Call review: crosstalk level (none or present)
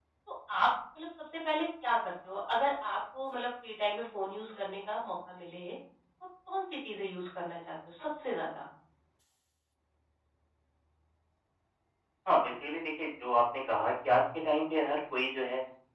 none